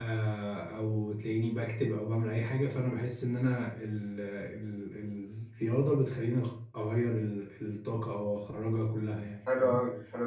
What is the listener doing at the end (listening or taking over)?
taking over